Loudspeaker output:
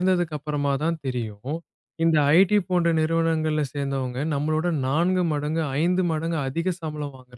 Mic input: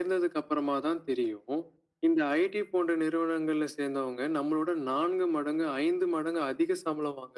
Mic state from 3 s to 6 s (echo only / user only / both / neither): echo only